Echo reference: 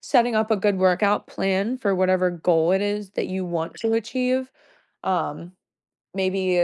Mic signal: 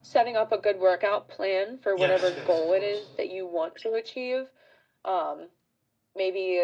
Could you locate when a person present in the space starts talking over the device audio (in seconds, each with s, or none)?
1.9 s